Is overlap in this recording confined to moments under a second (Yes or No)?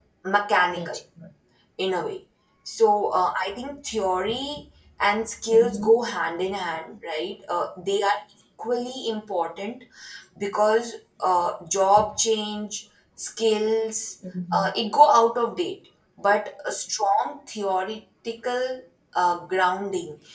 Yes